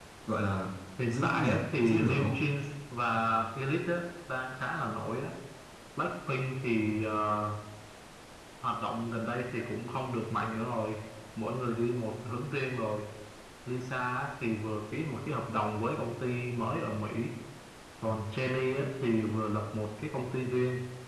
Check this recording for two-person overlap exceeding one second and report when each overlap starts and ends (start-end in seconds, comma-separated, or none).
1.1-2.4